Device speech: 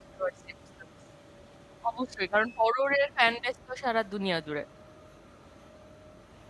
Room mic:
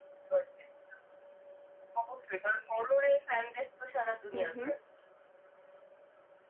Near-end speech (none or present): present